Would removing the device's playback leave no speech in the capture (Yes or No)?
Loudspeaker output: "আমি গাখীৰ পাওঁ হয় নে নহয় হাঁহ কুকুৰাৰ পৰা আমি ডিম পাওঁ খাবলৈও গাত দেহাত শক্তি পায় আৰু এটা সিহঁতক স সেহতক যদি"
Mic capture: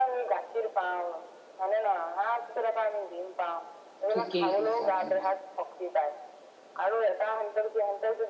No